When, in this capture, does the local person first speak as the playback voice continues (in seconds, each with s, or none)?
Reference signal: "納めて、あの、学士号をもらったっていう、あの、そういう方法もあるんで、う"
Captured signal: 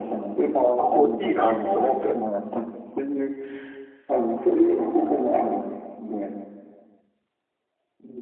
0.5 s